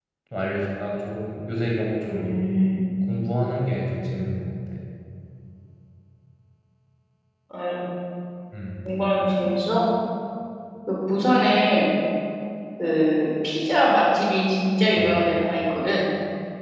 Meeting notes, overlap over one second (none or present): none